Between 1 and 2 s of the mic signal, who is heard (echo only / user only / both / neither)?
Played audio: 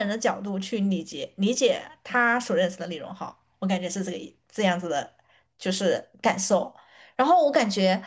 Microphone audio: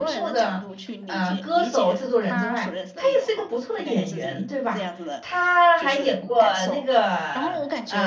both